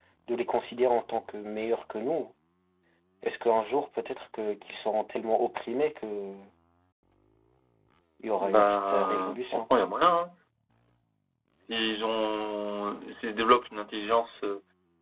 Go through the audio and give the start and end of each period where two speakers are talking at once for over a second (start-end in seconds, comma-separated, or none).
8.4-9.6